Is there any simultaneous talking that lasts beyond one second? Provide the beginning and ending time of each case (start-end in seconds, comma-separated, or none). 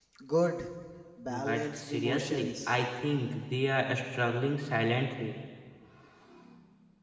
1.3-2.7